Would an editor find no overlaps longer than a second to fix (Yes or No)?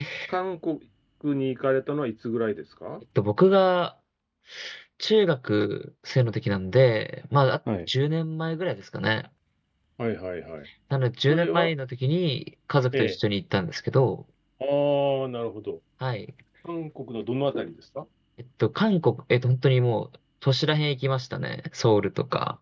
Yes